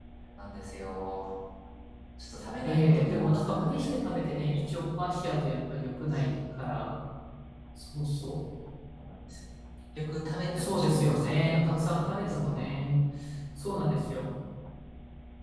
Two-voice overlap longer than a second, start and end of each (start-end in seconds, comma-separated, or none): 2.6-4.7, 10.6-12.8